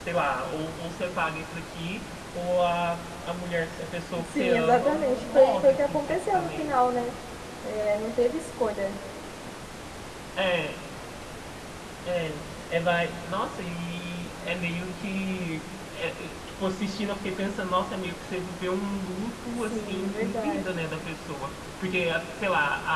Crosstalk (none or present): present